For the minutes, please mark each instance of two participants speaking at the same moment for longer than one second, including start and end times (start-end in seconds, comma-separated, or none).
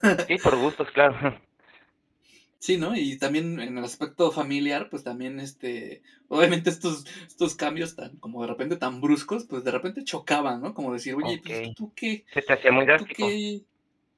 none